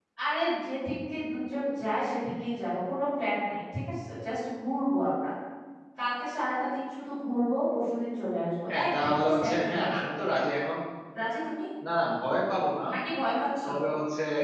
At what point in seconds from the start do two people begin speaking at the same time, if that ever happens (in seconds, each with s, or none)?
8.7 s